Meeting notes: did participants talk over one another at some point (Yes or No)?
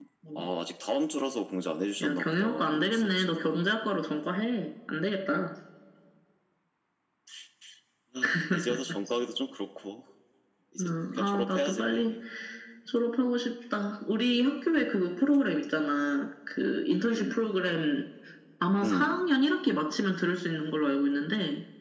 Yes